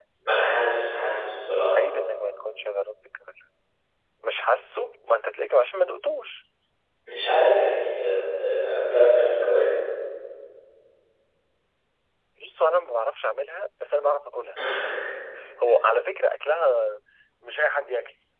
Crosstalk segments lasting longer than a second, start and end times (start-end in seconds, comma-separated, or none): none